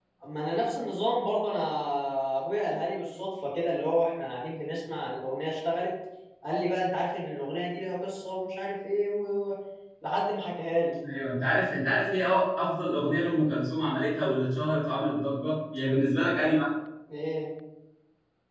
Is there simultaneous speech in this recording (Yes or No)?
No